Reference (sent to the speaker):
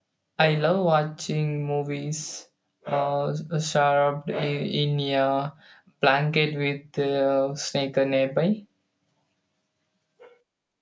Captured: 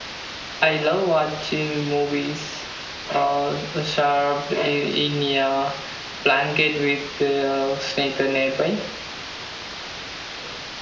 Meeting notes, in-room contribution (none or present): none